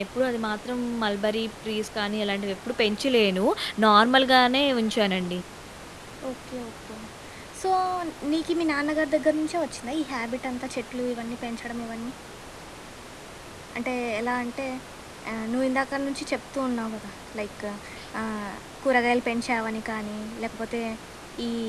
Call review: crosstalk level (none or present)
none